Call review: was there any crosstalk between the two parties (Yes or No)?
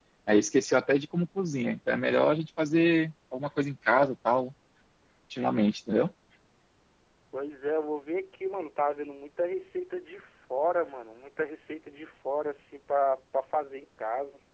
No